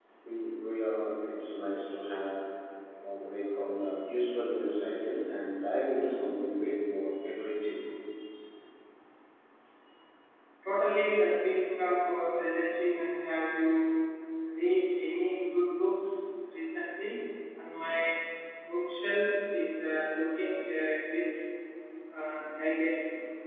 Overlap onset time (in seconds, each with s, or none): none